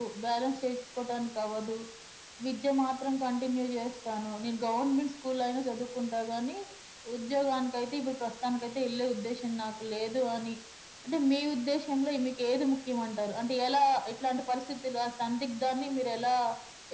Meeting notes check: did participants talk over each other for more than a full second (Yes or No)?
No